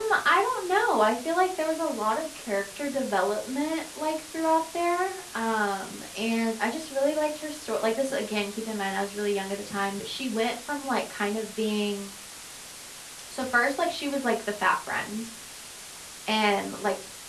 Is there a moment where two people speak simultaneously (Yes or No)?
No